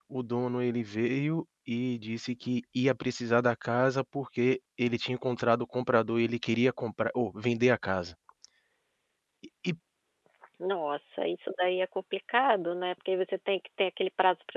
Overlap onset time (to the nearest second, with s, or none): none